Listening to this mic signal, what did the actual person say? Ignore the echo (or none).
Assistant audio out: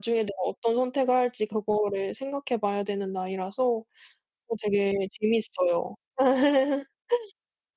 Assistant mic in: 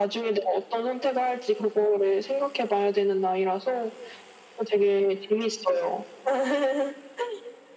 none